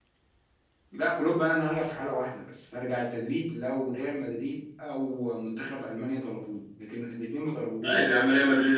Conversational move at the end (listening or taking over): taking over